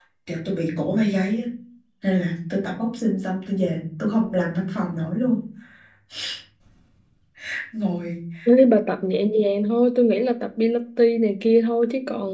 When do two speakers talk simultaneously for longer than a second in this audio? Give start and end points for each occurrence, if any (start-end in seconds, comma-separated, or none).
none